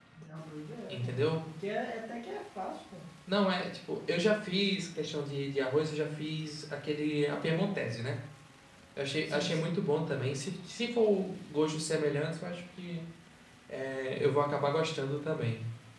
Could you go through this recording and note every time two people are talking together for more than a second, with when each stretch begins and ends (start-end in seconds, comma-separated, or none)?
none